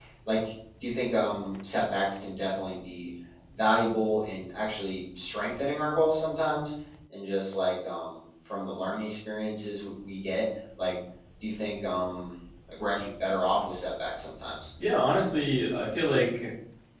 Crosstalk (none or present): none